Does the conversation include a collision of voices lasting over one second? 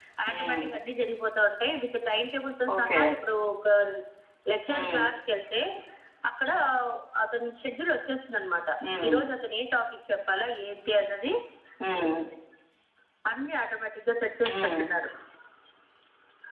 No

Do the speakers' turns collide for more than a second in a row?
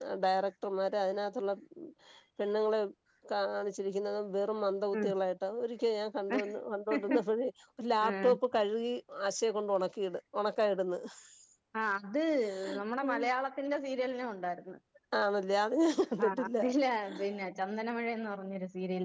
No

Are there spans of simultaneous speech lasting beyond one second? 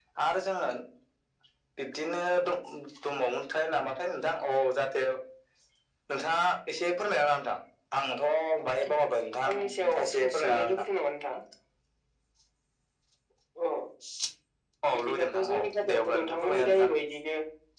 Yes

